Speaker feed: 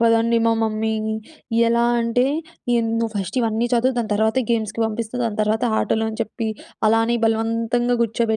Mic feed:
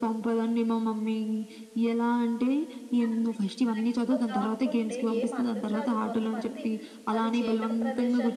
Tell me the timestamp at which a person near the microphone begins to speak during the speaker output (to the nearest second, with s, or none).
3 s